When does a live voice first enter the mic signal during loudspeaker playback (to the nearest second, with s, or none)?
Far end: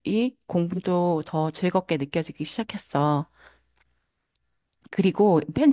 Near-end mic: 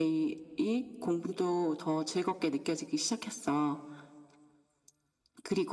none